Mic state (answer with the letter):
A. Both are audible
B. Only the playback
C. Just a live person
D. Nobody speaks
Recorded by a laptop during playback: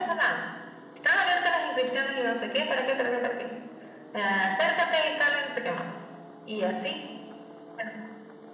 B